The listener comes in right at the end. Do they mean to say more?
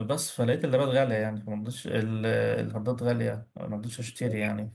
No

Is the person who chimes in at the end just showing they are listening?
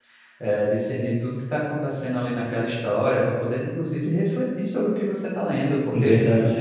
Yes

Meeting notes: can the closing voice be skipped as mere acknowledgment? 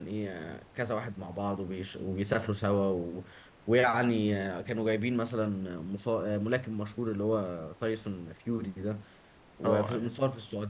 Yes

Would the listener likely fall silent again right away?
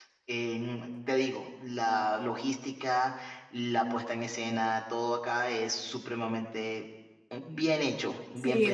No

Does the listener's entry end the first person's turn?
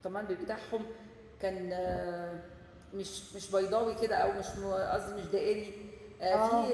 No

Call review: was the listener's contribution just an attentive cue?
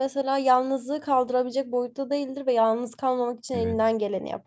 Yes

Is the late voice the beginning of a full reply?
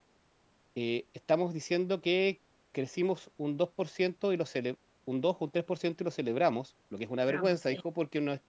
No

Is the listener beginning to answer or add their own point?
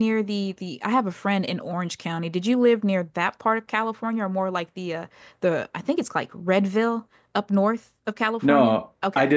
Yes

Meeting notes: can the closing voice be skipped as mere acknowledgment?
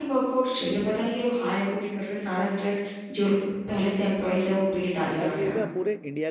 No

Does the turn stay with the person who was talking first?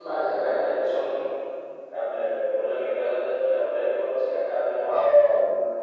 No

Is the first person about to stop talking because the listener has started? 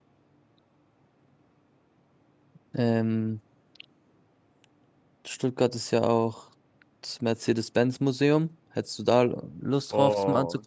Yes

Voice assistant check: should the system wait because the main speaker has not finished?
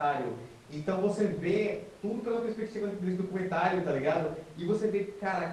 Yes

